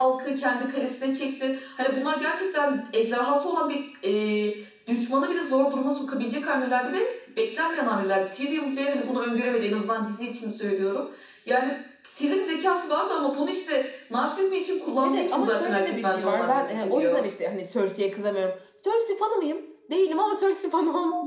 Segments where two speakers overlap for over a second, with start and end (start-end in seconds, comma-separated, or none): 15.0-17.2